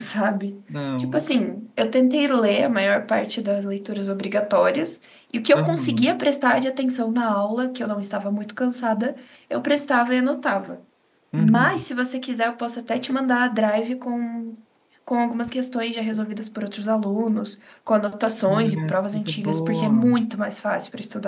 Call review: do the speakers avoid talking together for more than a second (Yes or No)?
No